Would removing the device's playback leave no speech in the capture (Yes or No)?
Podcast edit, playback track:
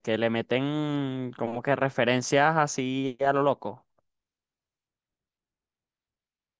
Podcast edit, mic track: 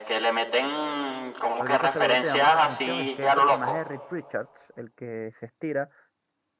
No